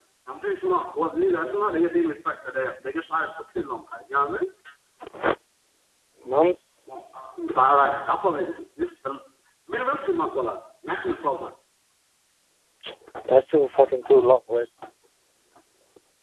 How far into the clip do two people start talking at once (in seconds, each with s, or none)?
none